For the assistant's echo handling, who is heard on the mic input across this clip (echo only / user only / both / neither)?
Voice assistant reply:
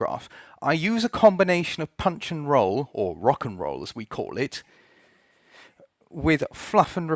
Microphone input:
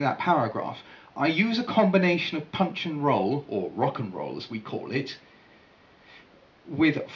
echo only